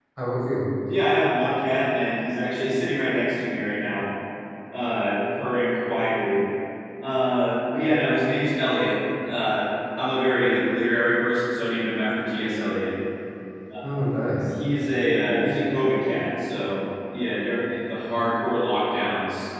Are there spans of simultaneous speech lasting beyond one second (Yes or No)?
No